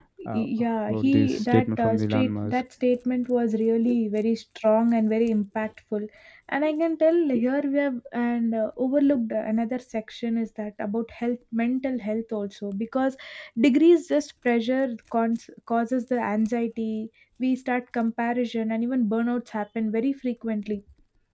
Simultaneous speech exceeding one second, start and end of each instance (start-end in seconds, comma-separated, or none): 0.9-2.5